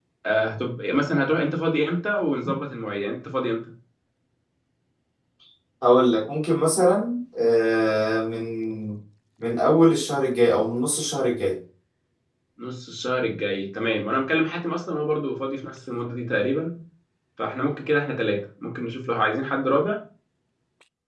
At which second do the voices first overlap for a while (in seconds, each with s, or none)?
none